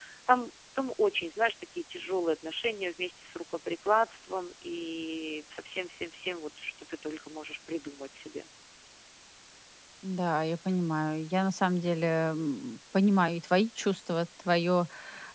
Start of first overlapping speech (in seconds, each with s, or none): none